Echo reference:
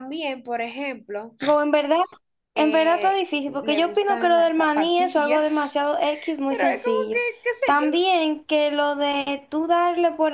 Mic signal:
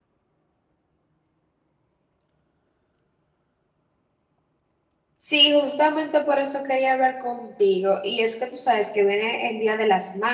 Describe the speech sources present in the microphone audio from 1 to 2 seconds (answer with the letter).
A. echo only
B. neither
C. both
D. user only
B